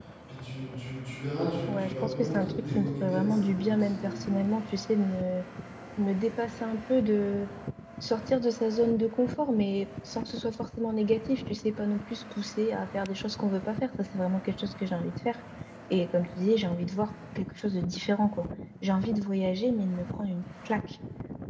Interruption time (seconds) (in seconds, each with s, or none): 1.7 s